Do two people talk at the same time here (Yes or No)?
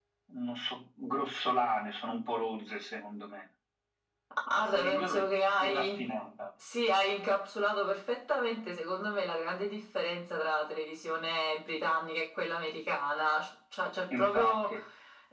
Yes